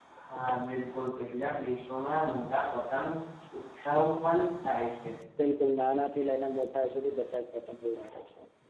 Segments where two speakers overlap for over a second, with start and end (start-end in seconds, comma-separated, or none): none